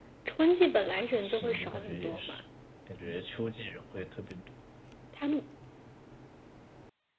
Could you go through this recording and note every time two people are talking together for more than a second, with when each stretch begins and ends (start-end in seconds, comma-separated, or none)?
0.9-2.4